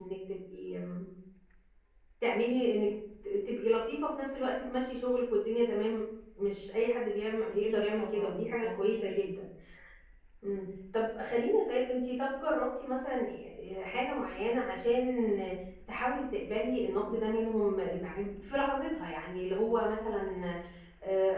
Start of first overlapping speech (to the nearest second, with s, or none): 8 s